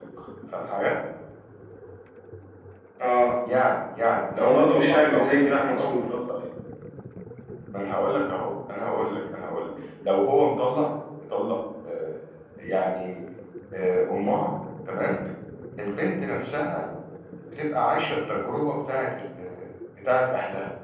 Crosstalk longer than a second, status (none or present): present